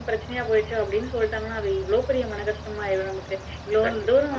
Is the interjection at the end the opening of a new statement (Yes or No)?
No